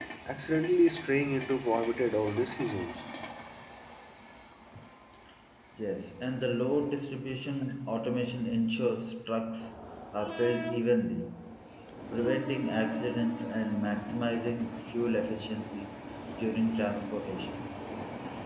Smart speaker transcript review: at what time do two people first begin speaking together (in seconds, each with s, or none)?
none